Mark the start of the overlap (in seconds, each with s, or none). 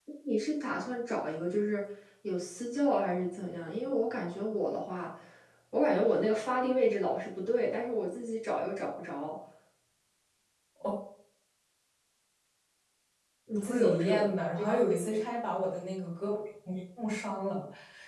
13.6 s